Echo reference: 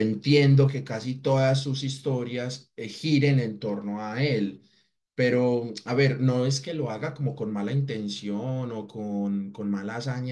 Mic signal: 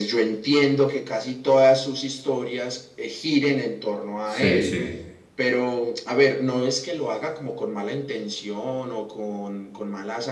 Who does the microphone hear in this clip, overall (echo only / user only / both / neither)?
both